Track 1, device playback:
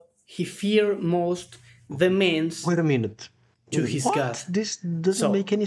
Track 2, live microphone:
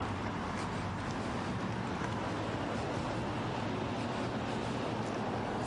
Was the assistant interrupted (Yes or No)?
No